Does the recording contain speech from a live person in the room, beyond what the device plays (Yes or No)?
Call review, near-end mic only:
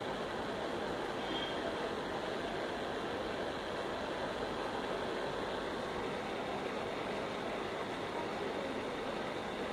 No